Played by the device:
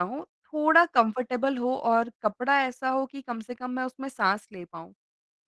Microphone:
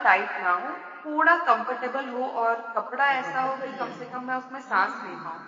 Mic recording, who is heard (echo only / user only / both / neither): both